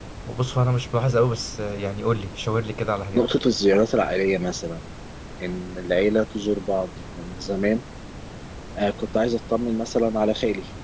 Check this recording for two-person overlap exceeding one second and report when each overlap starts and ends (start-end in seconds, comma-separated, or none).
none